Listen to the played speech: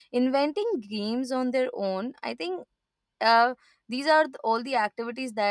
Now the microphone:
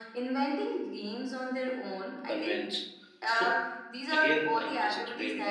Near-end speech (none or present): present